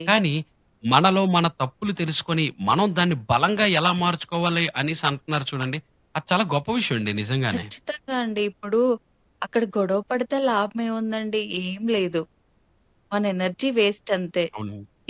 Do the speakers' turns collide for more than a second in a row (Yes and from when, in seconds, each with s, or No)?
No